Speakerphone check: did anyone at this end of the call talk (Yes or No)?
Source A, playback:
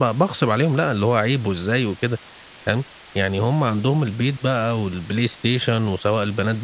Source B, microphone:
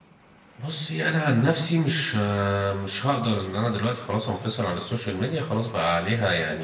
Yes